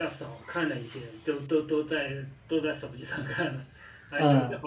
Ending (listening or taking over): listening